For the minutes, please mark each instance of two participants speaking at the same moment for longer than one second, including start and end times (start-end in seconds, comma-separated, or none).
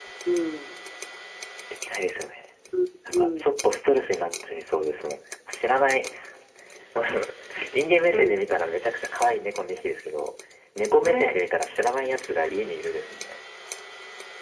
none